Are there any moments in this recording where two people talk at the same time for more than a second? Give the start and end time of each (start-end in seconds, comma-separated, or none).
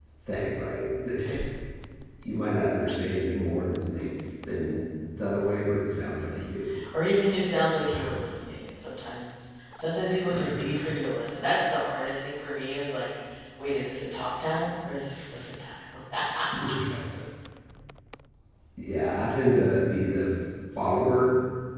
none